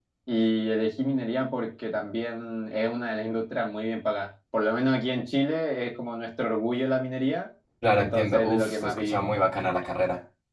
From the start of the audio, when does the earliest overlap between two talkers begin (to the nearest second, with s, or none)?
8 s